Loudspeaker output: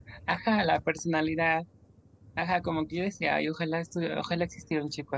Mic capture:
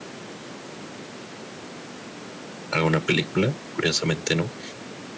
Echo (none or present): none